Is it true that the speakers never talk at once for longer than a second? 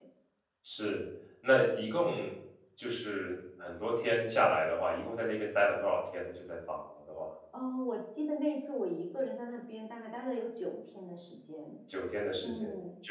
Yes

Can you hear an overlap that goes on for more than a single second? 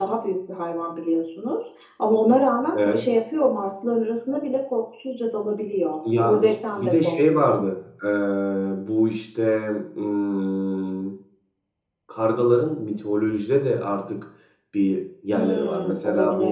Yes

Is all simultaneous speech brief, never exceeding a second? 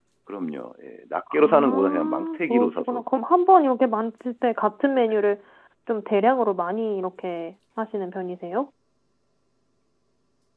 No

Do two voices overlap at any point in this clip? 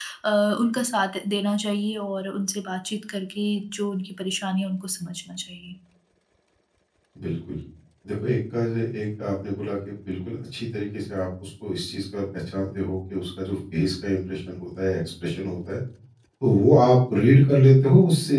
No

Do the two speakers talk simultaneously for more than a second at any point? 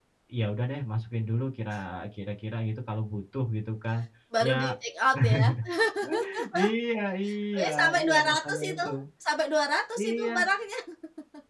Yes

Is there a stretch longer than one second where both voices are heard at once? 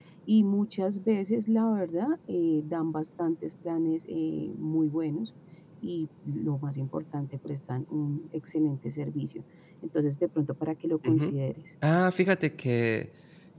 No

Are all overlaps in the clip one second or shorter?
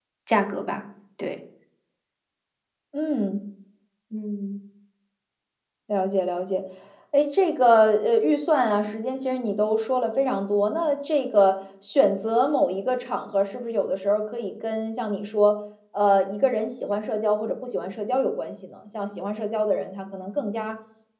Yes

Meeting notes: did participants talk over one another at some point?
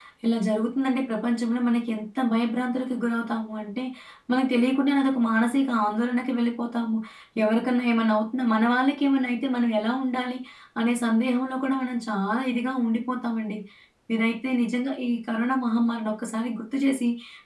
No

